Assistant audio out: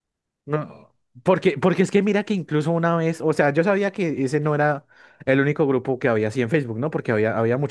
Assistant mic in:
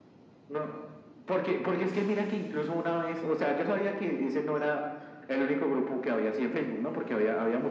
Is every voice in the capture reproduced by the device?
Yes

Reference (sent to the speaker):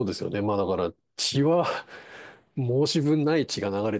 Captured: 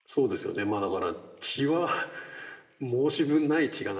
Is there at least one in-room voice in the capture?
No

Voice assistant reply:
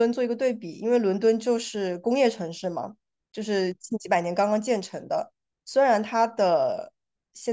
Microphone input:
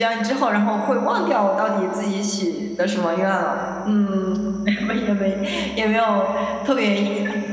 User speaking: Yes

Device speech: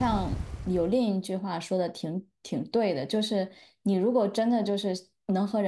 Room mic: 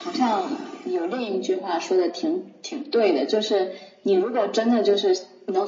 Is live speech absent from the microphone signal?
Yes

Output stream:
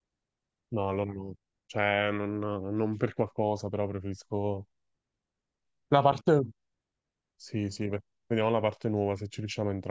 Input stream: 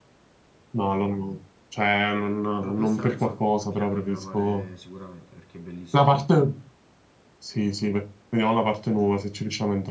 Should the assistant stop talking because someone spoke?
Yes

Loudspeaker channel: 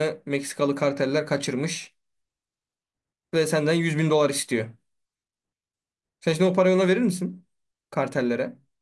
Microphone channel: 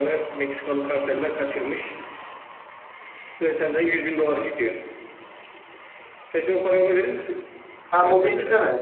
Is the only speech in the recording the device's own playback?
No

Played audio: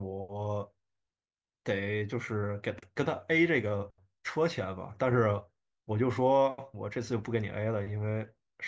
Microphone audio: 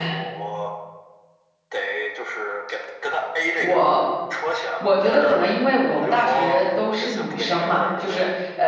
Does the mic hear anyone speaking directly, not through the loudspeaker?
Yes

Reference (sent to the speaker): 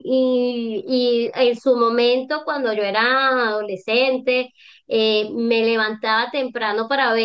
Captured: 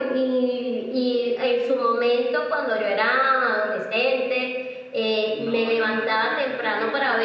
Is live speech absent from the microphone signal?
No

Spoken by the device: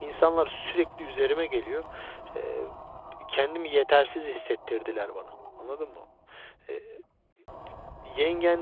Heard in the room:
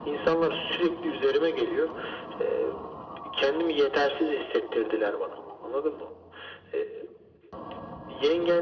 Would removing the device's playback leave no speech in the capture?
Yes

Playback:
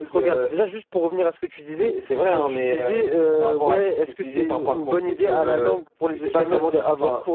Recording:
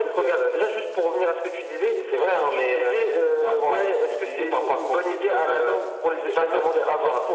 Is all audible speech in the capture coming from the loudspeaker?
Yes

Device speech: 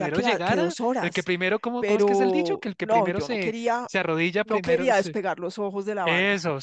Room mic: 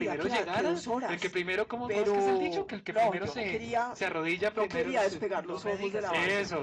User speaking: Yes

